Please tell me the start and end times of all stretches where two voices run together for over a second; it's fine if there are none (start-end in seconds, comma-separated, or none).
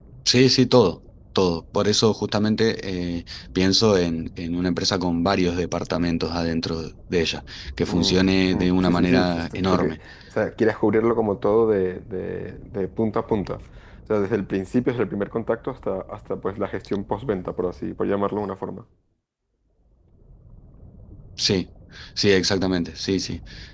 8.5-9.9